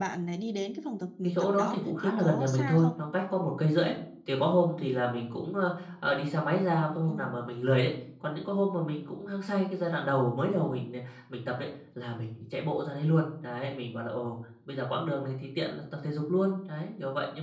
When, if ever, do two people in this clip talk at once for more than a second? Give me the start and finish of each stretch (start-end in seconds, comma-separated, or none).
1.2-2.9